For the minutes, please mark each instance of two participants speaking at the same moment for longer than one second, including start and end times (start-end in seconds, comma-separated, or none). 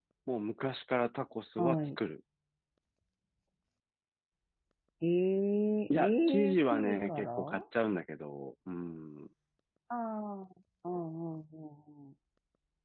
5.9-7.6